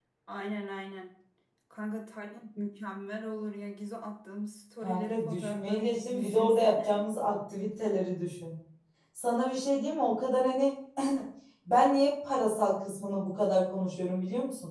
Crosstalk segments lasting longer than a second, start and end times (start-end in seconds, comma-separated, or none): 4.8-7.0